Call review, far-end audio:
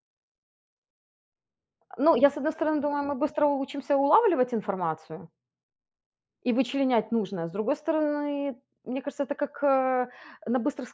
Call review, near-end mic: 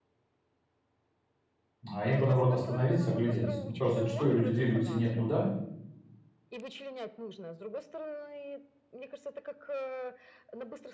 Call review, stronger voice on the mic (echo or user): user